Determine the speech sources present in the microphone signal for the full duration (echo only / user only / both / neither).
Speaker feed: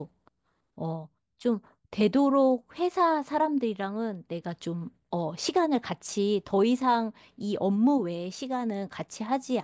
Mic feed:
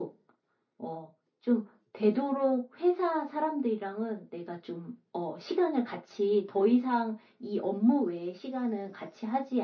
echo only